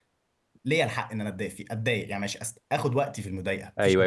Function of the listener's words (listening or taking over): taking over